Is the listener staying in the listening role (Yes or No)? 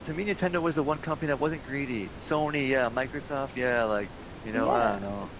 No